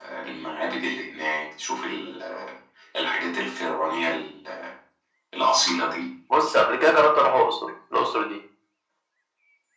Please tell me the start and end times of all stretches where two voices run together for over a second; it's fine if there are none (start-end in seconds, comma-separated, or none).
none